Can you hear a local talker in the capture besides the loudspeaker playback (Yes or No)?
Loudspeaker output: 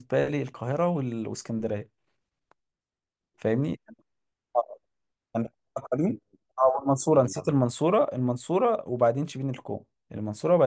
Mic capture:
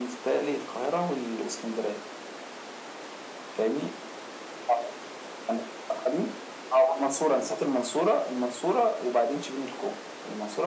No